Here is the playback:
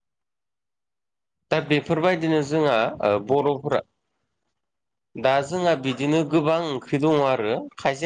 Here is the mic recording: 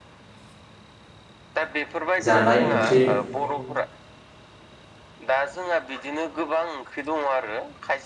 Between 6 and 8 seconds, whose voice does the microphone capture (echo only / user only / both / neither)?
echo only